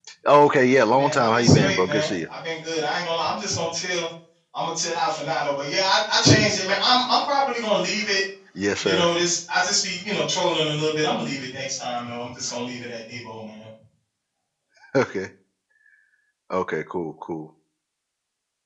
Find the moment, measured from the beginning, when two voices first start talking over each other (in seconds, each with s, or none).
0.9 s